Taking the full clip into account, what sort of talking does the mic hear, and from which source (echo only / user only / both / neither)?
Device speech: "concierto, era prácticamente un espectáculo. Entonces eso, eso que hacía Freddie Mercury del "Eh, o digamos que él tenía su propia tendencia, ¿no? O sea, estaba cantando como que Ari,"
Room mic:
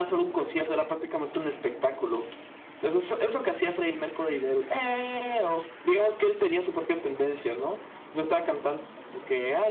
echo only